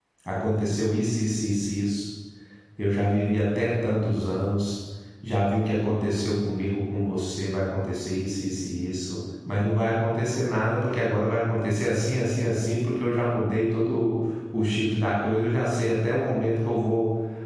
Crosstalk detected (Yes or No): No